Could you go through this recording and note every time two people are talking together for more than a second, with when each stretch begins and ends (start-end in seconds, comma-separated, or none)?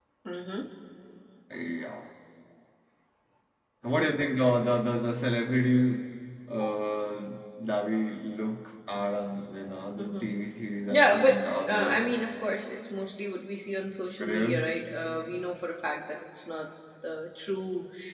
10.9-12.1